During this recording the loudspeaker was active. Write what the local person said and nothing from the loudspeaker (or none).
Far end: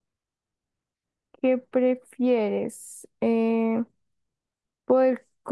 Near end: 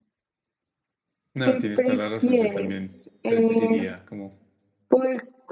No, tienes toda la razón, yo también preferiría como